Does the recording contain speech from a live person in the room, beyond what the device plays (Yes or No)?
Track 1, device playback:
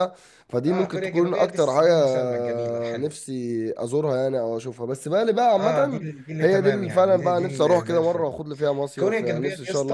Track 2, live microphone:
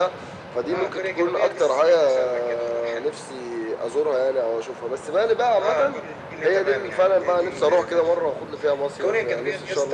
No